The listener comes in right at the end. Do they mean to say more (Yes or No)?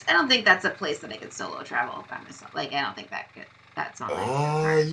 Yes